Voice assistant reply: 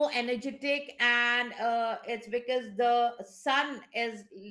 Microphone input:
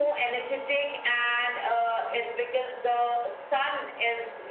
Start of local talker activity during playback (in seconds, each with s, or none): none